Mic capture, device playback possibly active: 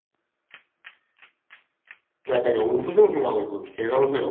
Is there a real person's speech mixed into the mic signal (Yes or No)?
Yes